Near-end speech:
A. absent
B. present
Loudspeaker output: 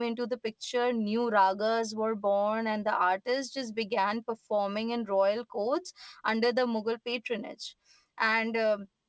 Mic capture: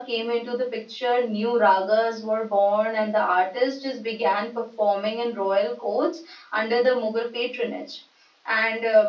A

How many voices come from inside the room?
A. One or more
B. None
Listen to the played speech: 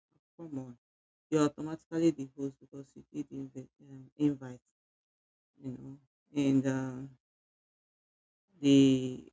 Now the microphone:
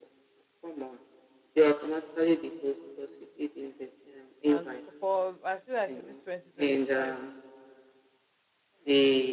A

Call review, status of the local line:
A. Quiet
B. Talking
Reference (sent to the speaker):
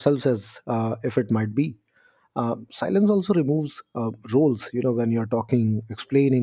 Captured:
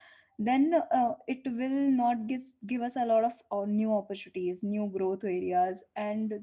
B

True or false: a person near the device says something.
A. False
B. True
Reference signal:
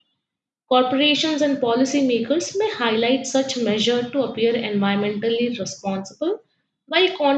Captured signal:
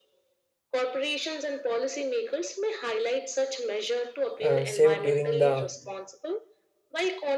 B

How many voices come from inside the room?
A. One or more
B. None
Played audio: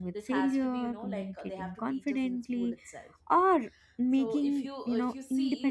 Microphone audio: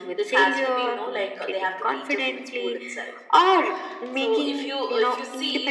B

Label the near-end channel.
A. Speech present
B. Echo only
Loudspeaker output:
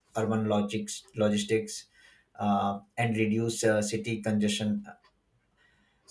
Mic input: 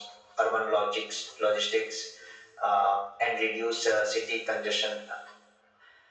B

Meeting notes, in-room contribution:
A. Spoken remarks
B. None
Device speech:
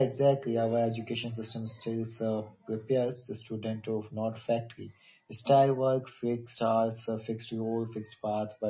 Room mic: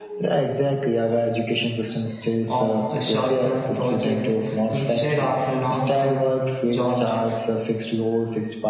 A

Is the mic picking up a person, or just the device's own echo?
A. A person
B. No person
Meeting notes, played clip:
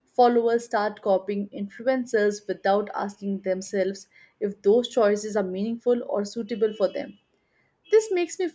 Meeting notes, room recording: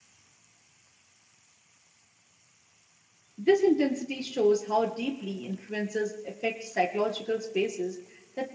A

